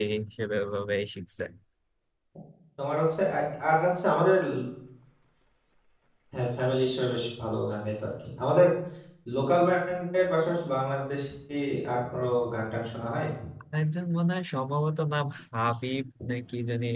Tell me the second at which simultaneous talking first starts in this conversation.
none

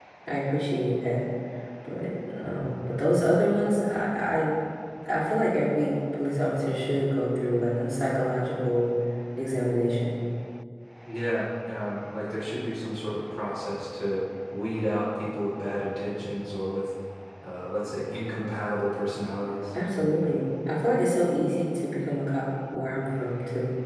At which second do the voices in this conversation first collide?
none

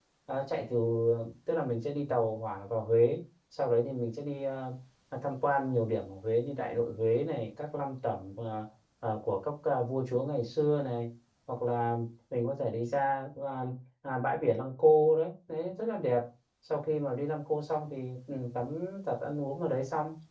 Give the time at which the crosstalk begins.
none

